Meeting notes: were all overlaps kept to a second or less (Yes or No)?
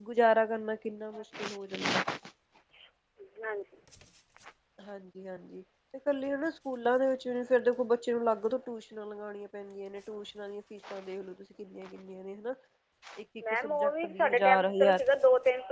No